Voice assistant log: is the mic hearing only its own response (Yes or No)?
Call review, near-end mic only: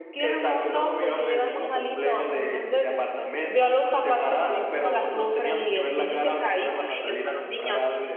No